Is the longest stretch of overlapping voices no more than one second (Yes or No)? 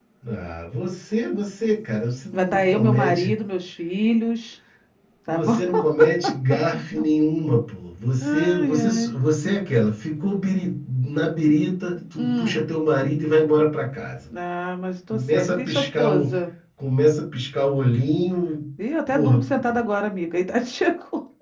No